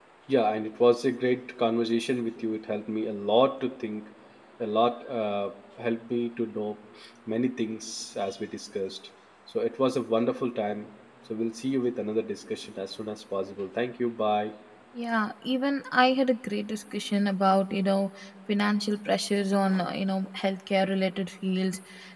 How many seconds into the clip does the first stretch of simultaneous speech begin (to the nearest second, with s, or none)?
none